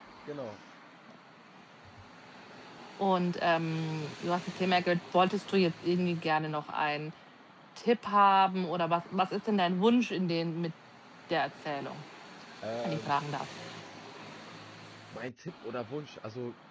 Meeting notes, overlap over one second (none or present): none